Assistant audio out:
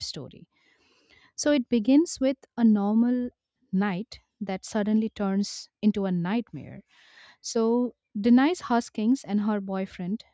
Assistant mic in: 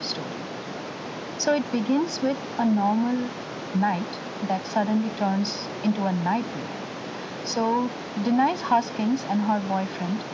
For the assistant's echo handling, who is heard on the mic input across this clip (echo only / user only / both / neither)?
echo only